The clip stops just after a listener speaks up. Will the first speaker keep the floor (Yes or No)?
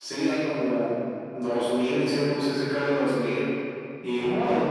No